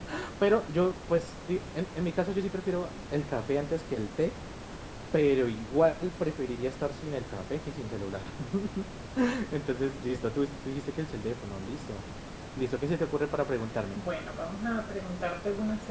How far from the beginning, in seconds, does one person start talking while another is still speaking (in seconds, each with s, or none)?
none